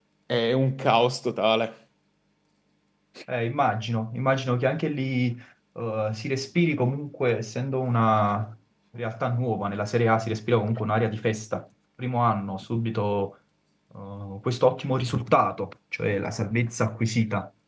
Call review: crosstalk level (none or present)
none